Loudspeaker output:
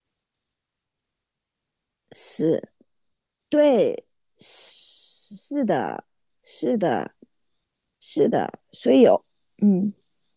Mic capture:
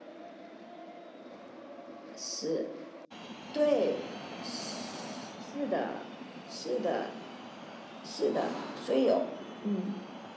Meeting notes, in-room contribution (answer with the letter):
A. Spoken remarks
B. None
B